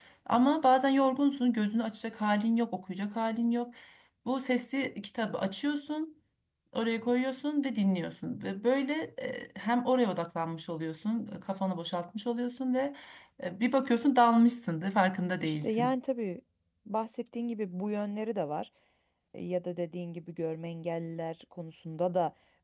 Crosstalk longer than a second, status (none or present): none